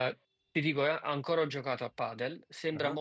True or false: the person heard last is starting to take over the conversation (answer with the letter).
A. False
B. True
A